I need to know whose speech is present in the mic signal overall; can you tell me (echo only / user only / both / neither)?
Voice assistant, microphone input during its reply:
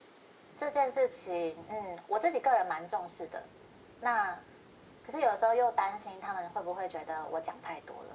echo only